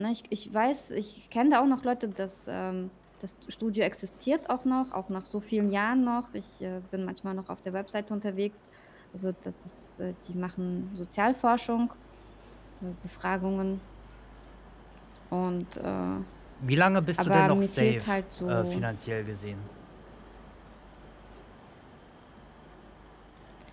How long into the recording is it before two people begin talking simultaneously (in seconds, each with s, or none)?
17.2 s